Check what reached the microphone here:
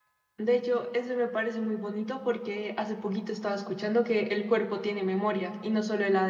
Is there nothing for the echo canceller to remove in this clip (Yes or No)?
Yes